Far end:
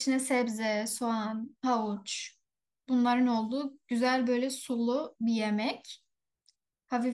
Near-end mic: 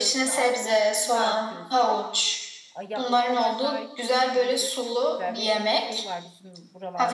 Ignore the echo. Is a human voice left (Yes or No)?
Yes